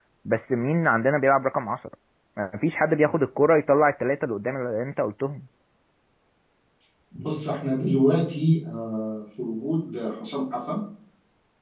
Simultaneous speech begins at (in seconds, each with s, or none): none